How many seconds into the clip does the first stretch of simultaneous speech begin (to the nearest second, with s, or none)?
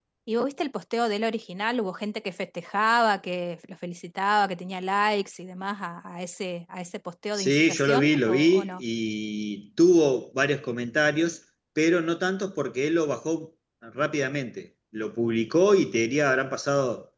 7 s